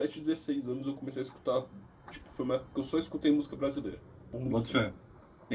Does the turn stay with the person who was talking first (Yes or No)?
No